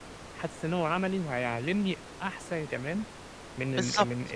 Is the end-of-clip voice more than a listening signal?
No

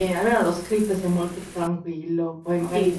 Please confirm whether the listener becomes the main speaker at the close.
No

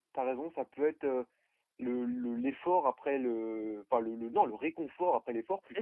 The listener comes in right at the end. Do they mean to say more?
No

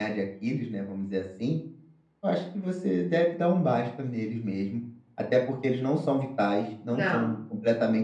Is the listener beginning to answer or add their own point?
No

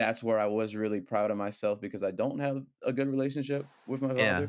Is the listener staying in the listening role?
Yes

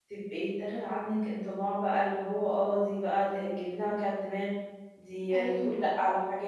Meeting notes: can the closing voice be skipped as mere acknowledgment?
Yes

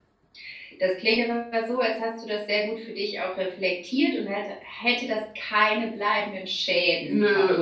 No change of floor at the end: No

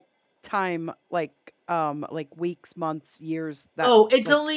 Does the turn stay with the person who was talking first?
No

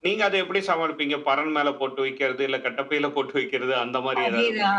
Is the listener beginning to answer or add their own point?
Yes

